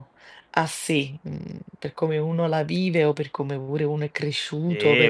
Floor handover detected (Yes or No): Yes